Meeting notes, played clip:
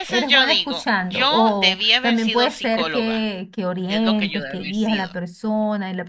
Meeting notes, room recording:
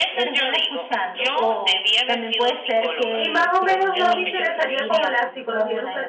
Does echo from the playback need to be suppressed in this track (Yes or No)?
Yes